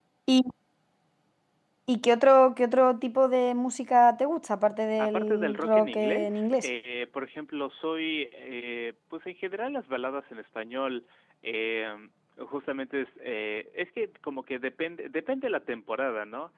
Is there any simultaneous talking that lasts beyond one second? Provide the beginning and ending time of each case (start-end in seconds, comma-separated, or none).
5.0-6.7